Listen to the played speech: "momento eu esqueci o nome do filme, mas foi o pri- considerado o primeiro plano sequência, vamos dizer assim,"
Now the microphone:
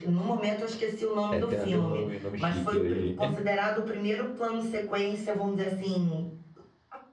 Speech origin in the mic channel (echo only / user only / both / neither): both